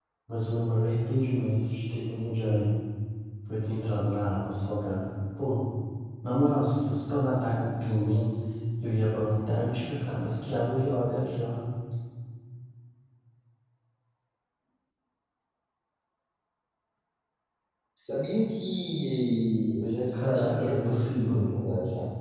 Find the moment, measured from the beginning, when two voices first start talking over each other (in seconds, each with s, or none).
20.1 s